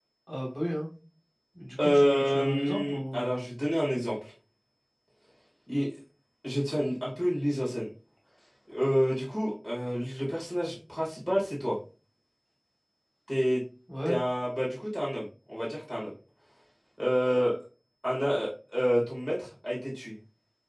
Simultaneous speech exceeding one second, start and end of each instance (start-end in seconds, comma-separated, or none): 1.8-3.3